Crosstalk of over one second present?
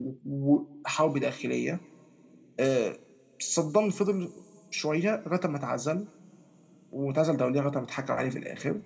No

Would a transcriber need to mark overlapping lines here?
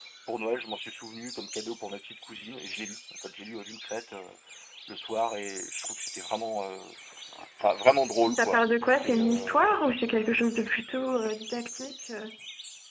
Yes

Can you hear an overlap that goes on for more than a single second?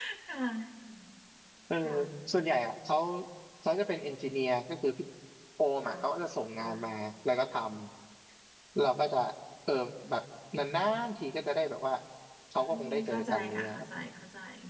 Yes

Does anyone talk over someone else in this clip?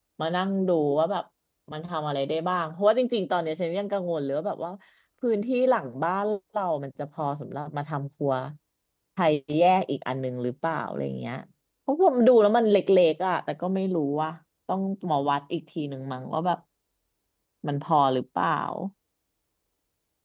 No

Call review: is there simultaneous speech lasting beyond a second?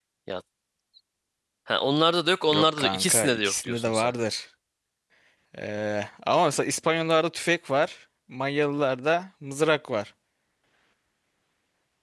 Yes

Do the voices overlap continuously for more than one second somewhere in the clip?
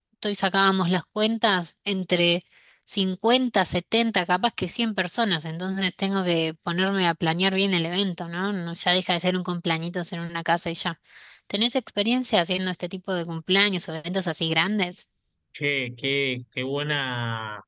No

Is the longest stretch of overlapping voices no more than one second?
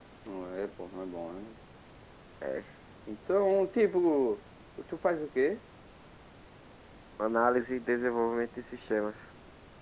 Yes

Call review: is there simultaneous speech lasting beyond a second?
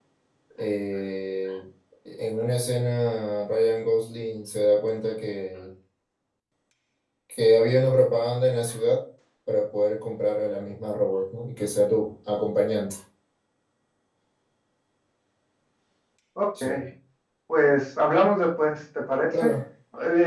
No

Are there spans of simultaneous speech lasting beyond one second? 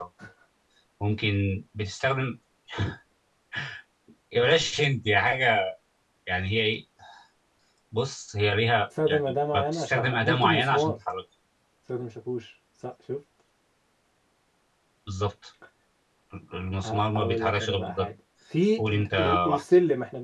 Yes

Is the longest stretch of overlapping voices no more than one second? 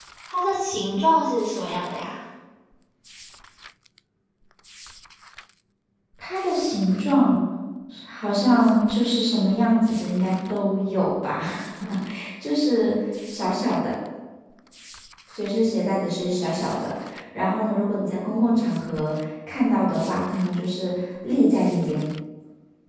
Yes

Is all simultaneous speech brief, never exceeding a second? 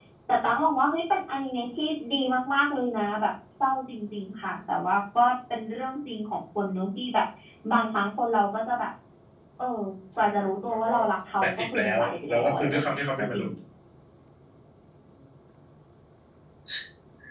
No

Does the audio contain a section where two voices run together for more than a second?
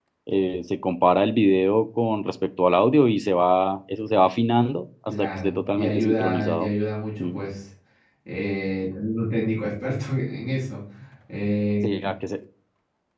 Yes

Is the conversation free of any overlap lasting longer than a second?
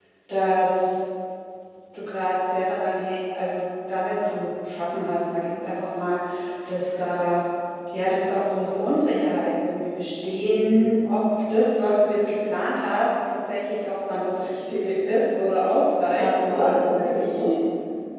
No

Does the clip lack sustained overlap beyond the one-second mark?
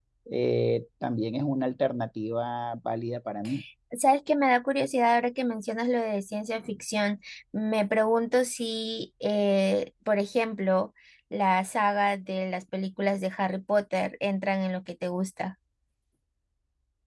Yes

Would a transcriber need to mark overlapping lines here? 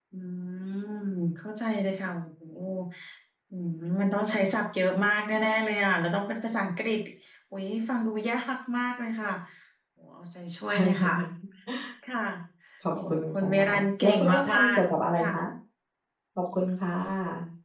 Yes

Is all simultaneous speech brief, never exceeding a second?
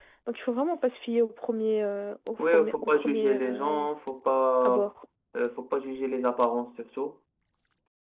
No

